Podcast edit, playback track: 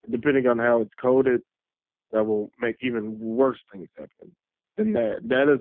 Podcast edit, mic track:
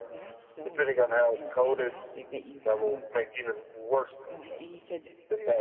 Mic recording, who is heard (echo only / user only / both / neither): both